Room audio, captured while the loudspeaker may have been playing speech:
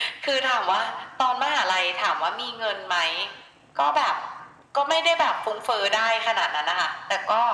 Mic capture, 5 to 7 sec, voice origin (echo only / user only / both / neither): echo only